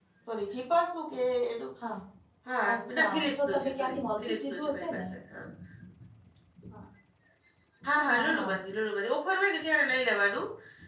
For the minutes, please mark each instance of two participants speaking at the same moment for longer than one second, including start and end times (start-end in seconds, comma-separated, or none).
2.9-5.0